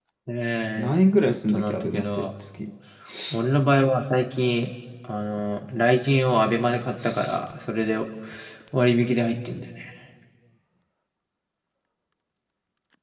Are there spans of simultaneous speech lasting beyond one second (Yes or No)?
Yes